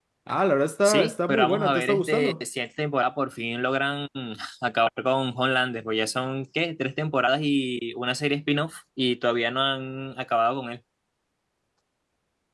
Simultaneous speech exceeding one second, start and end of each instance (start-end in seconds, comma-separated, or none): 0.8-2.3